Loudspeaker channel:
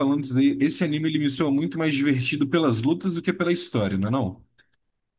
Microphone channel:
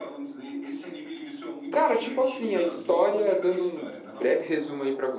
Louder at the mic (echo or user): user